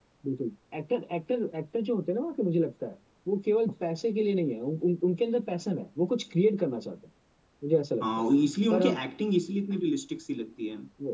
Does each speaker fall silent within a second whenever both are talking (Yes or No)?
Yes